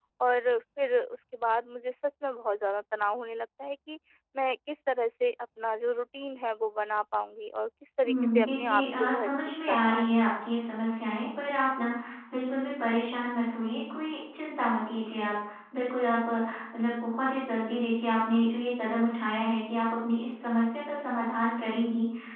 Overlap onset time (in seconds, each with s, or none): 8.0 s